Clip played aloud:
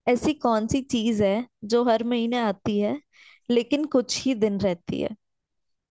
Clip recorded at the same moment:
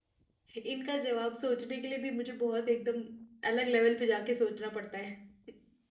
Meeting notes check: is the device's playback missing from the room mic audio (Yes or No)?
Yes